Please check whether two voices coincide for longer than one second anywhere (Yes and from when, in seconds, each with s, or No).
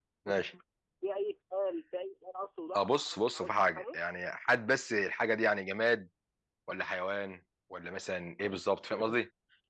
Yes, from 2.7 s